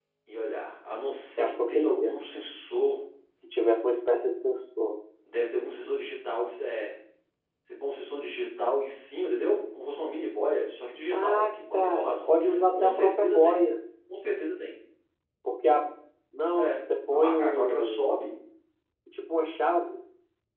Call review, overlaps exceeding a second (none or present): present